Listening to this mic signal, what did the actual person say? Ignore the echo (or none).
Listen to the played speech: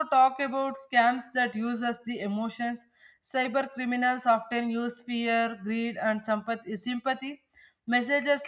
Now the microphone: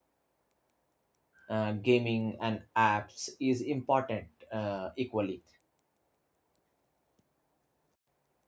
uh, gaming and apps is important uh, equally